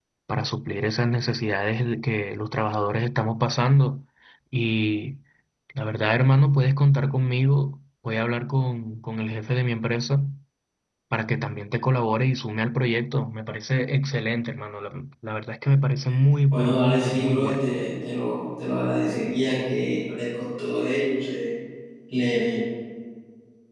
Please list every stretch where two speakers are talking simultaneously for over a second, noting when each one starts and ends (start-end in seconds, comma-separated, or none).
16.5-17.8